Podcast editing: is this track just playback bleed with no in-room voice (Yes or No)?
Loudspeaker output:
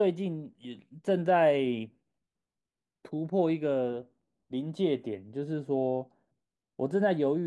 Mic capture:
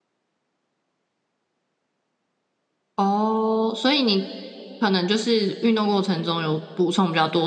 No